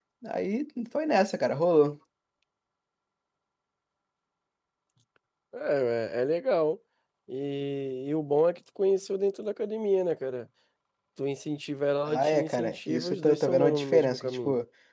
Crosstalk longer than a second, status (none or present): present